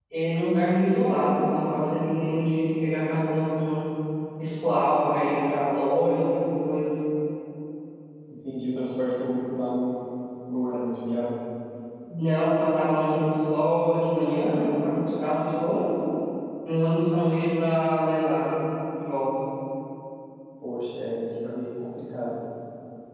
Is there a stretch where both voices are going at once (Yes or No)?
No